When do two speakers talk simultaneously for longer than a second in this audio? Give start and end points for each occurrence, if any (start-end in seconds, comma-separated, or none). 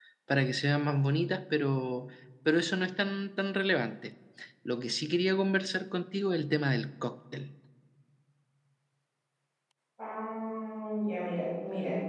none